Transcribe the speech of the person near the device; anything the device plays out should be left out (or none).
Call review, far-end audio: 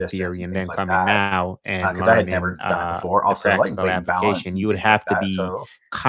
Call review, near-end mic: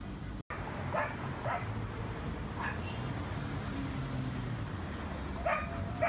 none